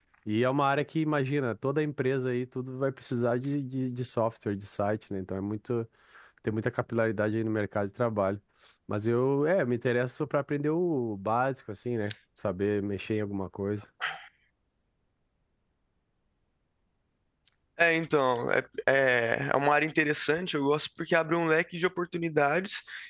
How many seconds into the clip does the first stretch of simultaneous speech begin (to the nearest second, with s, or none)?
none